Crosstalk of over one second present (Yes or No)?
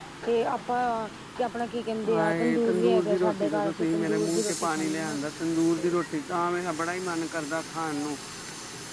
Yes